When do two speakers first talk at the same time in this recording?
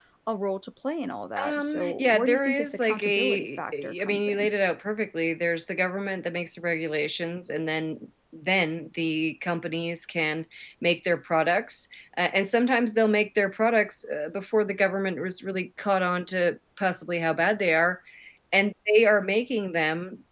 1.4 s

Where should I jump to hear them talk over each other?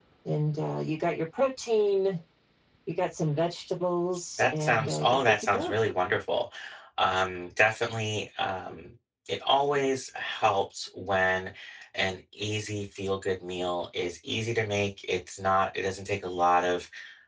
4.4 s

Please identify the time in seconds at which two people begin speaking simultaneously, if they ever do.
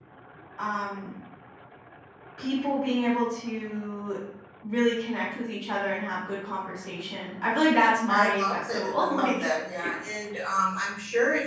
8.1 s

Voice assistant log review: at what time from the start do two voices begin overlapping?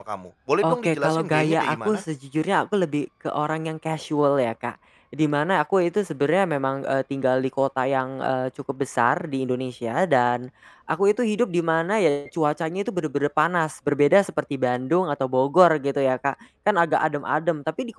0.6 s

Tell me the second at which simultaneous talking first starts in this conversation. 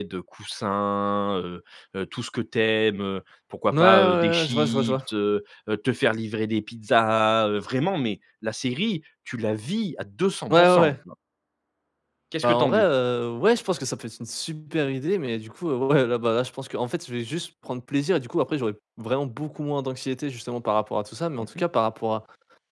3.7 s

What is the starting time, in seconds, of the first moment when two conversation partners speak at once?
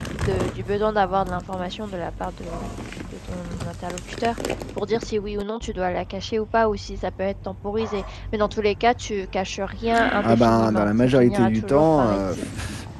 10.2 s

